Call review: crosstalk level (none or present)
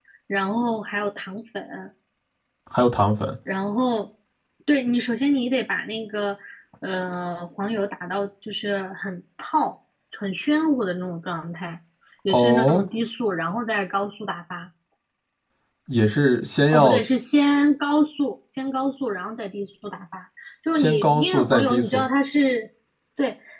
present